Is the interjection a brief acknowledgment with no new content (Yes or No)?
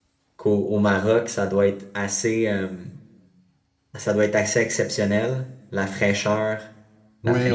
No